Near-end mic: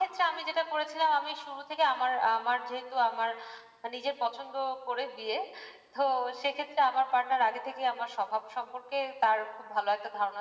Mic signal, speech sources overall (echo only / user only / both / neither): echo only